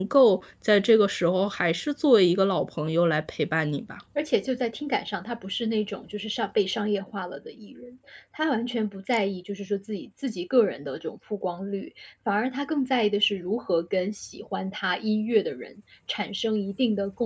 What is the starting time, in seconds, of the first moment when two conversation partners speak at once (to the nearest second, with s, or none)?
none